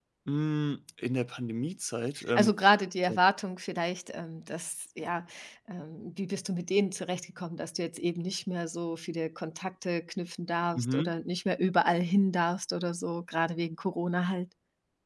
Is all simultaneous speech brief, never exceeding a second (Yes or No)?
Yes